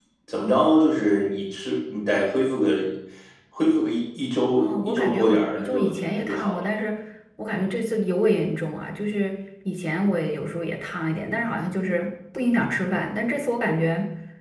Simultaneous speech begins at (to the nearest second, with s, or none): 5 s